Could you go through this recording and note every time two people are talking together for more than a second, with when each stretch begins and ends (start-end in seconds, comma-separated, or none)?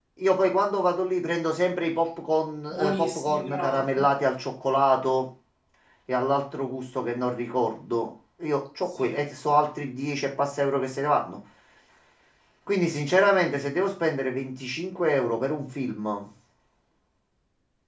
2.7-4.1